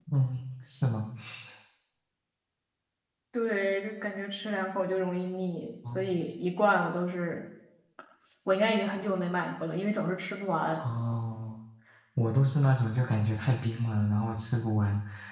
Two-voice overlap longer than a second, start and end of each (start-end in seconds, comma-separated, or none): none